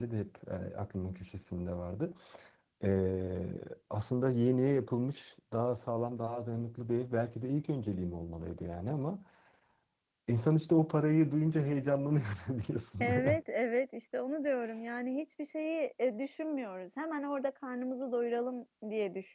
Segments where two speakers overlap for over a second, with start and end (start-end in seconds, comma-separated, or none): none